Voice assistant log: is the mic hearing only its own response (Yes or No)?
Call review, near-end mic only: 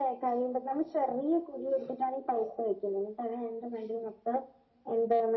Yes